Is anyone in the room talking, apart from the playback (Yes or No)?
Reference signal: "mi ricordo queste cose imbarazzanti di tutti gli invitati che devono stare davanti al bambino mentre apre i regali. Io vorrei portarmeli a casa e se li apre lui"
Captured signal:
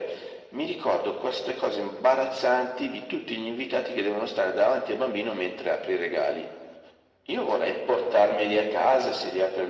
No